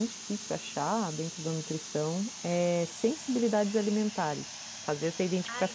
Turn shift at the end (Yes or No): Yes